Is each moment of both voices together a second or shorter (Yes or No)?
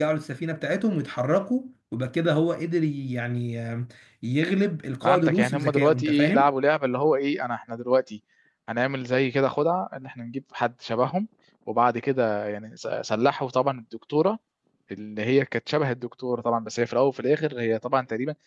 No